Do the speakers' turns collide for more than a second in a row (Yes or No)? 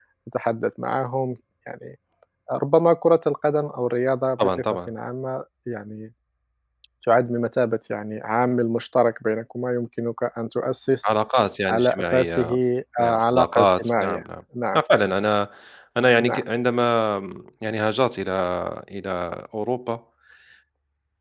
Yes